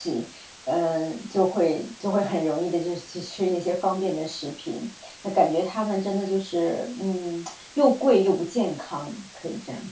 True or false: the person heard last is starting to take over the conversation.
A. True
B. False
A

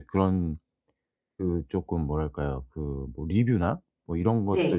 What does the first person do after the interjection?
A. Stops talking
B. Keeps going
B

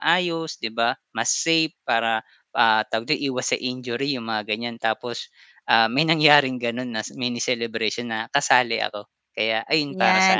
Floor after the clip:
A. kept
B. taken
B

